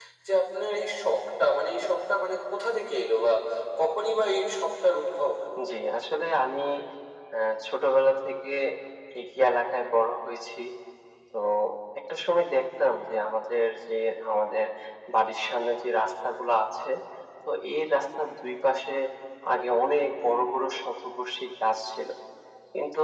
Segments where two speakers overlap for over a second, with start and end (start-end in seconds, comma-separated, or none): none